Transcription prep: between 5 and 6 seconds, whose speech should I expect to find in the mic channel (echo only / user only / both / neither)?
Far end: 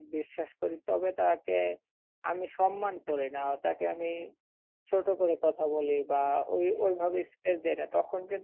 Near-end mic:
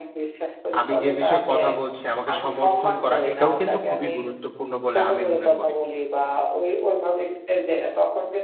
both